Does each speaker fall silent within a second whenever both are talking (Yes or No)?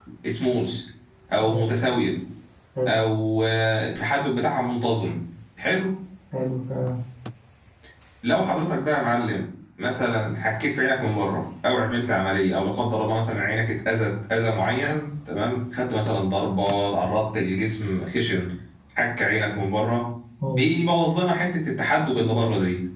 Yes